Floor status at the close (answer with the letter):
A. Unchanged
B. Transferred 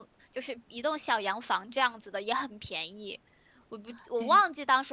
A